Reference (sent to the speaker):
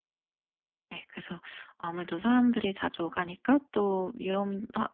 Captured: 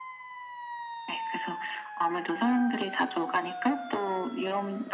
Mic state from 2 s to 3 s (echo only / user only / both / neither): echo only